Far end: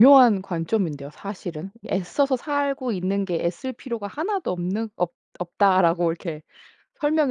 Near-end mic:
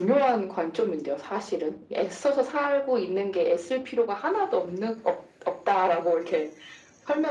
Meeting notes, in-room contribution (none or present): none